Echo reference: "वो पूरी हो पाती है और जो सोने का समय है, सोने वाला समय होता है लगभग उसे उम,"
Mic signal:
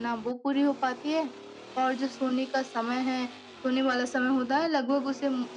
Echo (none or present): present